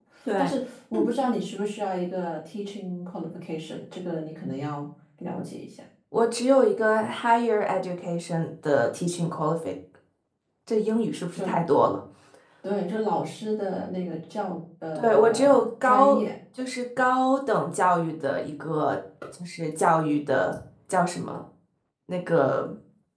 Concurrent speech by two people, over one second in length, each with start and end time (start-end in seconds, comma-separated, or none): 14.9-16.2